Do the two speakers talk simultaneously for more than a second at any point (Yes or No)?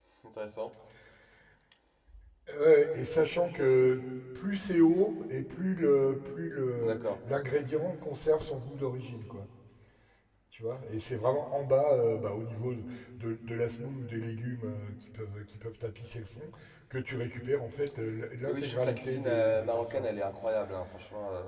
Yes